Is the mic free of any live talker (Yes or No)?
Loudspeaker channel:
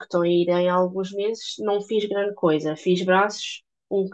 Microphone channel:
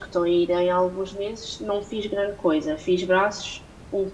Yes